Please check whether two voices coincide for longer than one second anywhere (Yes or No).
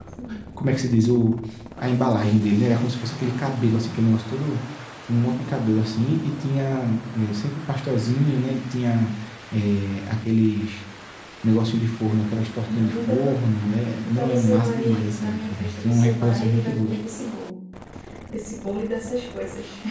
Yes